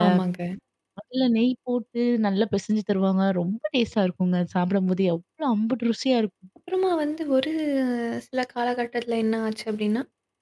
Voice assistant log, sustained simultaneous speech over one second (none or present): none